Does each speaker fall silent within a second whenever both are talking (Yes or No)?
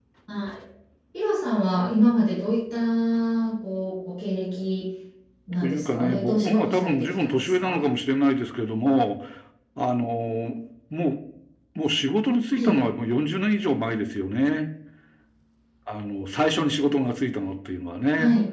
No